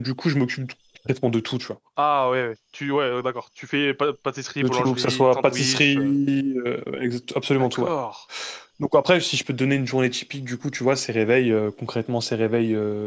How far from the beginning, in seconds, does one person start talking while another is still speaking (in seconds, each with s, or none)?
4.6 s